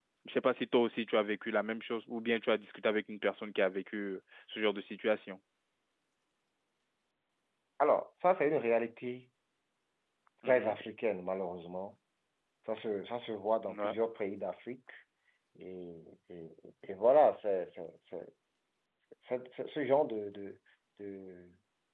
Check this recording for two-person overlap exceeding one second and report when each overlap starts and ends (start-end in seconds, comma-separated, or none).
none